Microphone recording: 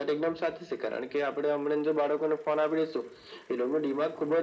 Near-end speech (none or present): none